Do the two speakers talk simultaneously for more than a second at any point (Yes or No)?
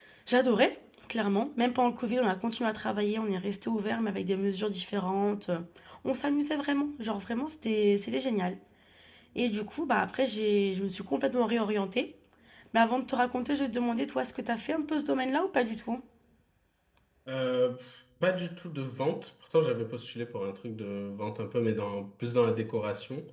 No